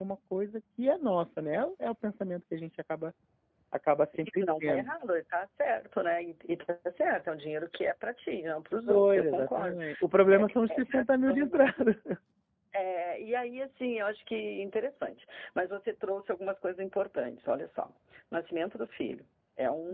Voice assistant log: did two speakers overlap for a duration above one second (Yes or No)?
Yes